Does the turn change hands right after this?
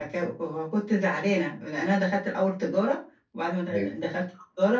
No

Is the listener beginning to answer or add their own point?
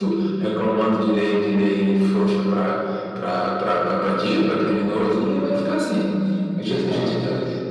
No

